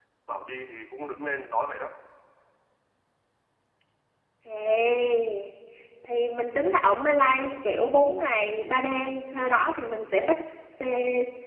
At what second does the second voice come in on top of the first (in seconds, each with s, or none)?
none